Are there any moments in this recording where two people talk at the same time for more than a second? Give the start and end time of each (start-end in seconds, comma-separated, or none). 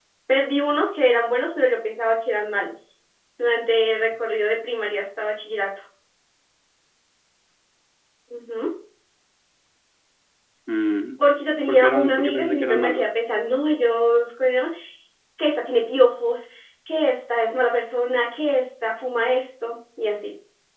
11.7-13.1